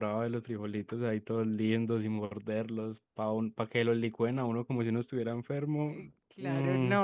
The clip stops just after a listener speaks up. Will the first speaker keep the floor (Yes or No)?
No